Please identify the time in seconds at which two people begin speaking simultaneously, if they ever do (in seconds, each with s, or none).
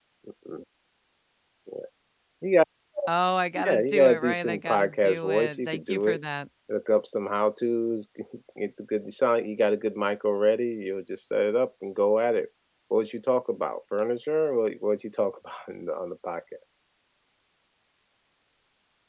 3.5 s